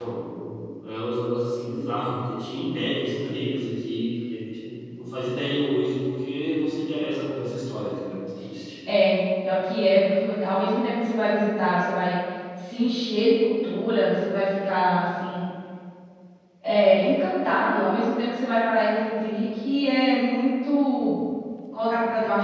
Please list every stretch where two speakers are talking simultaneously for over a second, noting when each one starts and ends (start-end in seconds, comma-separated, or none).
none